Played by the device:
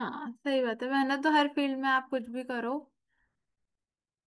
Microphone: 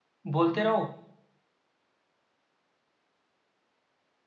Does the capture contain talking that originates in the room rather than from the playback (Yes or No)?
Yes